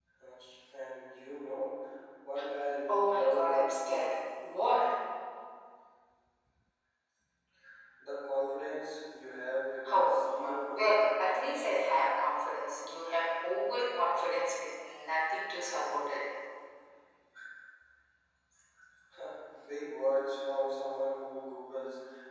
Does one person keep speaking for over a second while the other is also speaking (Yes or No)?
Yes